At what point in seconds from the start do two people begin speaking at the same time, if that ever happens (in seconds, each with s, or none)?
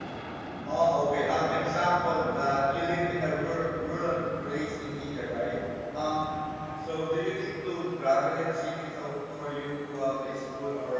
none